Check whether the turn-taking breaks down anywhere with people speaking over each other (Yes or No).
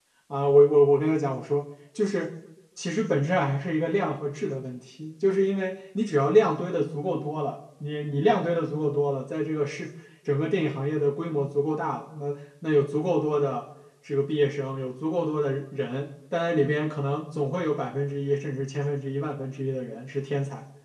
No